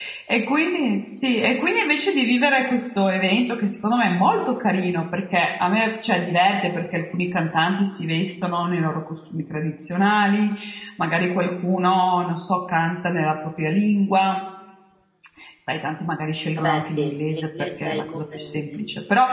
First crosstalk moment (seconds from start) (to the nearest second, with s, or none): 17 s